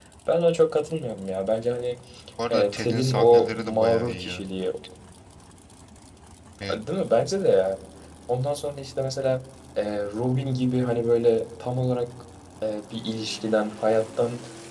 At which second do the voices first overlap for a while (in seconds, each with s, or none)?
2.5 s